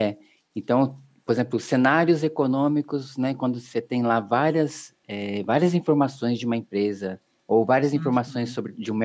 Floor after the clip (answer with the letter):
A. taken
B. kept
B